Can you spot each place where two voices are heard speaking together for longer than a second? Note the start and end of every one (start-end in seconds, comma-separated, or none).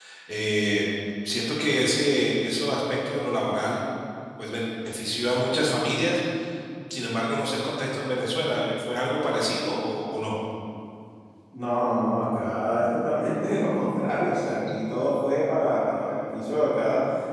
none